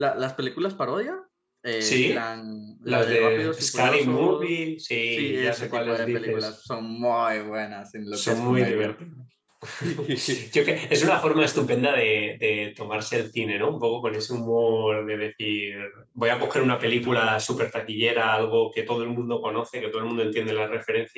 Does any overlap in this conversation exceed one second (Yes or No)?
Yes